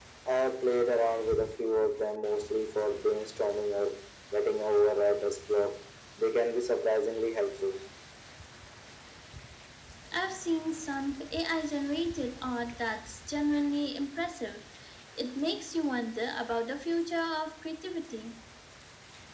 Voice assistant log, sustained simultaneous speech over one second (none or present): none